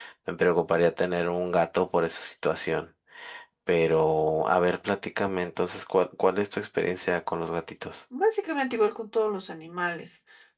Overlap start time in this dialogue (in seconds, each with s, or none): none